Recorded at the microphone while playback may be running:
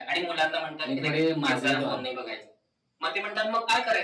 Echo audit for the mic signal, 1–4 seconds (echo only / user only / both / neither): both